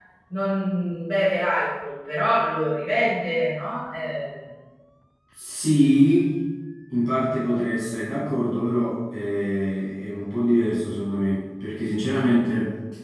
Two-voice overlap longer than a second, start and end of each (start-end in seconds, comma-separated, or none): none